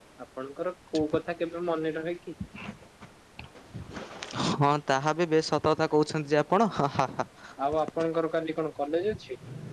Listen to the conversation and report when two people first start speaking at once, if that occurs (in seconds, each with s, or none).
none